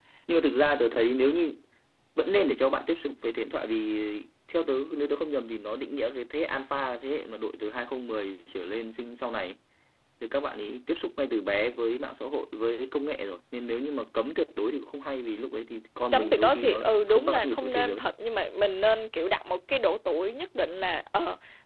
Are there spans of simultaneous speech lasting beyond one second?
Yes, from 16.1 s

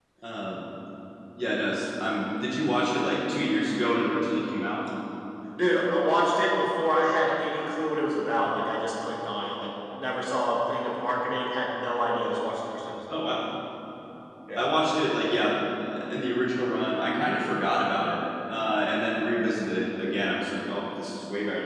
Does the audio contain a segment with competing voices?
No

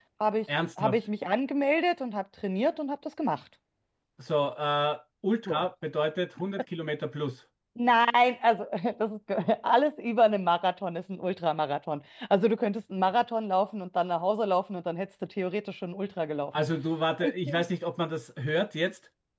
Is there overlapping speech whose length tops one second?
No

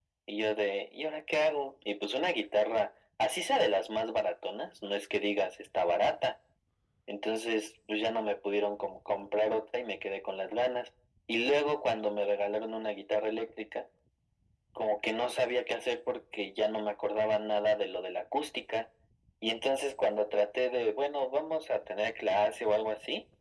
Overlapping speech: No

